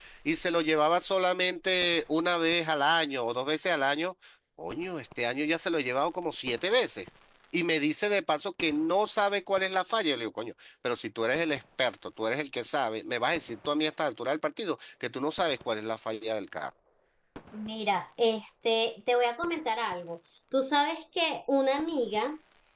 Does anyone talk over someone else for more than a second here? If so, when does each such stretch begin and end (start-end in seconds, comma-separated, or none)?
none